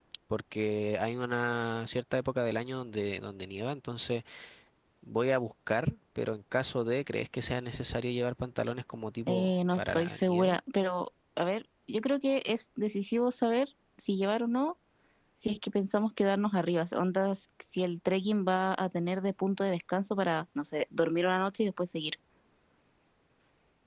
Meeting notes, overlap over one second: present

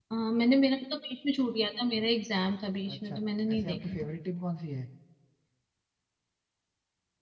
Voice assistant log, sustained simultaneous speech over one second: none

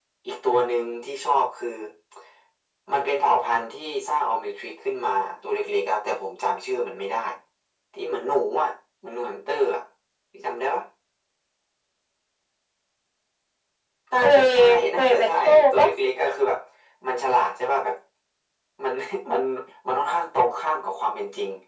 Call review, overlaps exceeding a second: present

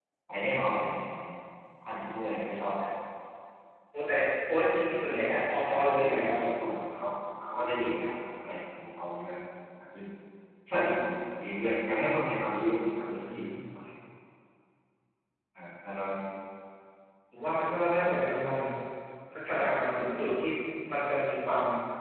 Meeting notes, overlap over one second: present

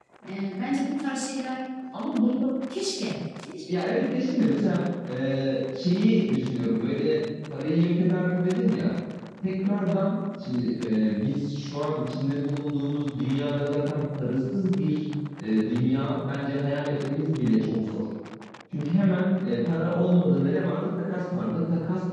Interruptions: none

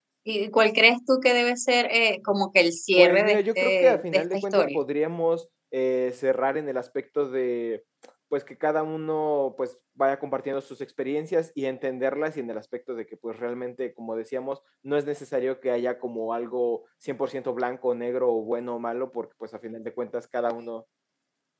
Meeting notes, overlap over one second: present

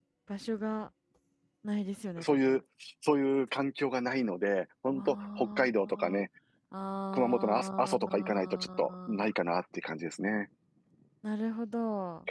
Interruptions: present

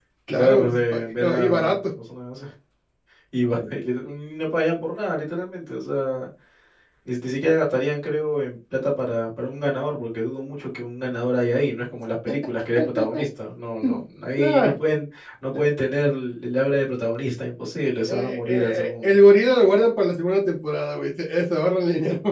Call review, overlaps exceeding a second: present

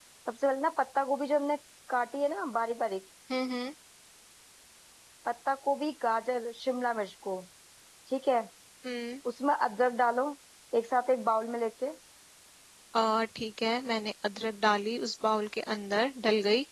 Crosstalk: none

